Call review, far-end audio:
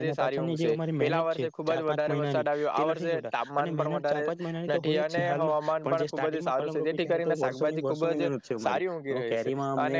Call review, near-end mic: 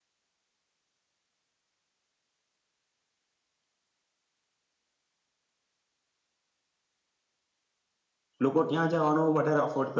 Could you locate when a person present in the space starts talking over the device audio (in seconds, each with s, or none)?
8.5 s